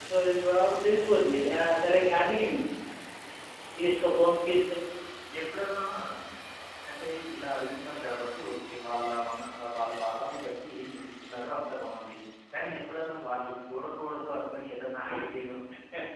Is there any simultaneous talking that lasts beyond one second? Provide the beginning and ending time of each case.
none

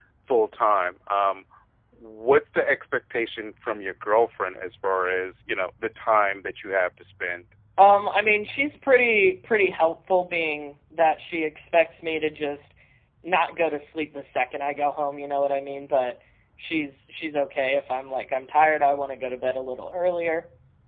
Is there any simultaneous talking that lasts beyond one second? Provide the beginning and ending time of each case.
none

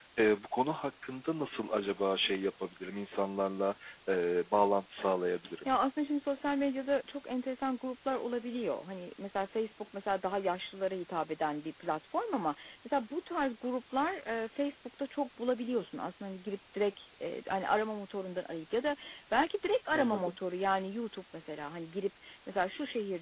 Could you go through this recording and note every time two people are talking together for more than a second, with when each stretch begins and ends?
none

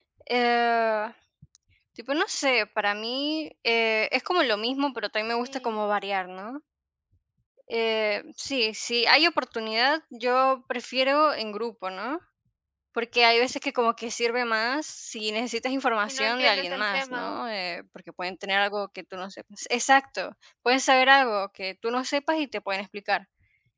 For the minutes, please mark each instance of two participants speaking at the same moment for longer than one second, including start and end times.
16.1-17.4

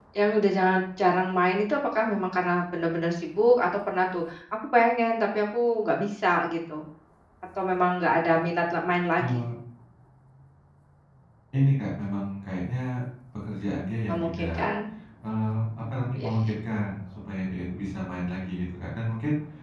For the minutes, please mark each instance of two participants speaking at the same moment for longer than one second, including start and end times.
none

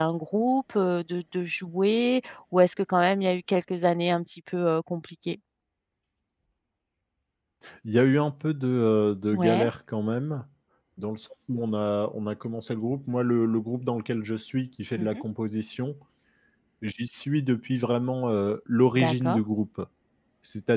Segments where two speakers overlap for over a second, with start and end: none

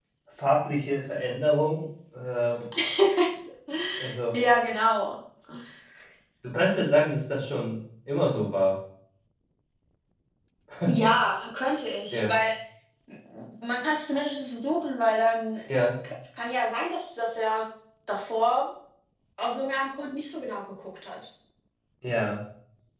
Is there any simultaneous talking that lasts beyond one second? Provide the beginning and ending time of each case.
none

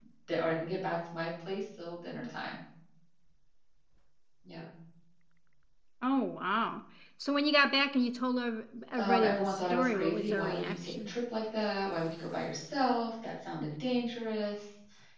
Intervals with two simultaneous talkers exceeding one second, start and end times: 9.0-11.1

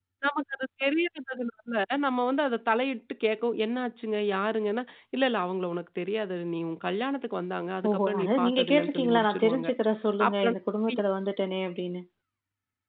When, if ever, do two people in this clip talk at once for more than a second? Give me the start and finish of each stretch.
7.9-9.7

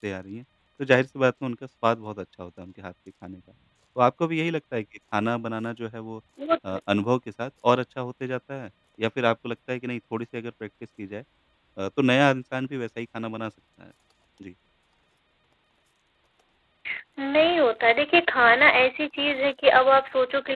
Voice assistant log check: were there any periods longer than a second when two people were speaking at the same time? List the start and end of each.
none

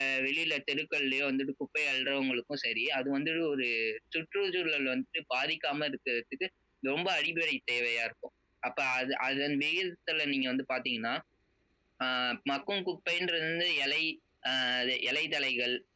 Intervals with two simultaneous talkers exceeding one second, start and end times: none

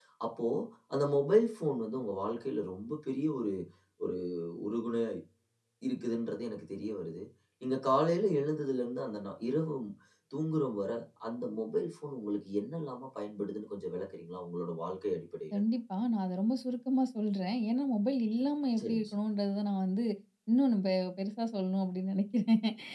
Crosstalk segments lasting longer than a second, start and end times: none

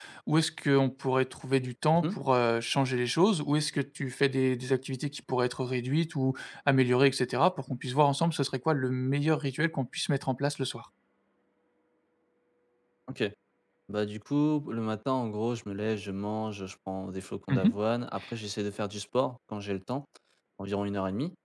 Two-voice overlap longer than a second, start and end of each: none

